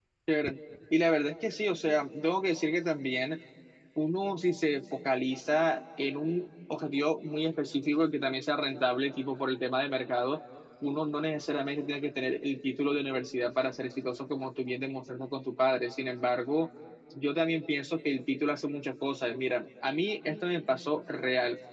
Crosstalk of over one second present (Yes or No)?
No